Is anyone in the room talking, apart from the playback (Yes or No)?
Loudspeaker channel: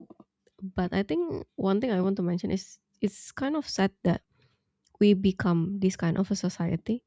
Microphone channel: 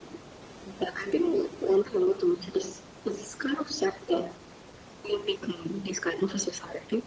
No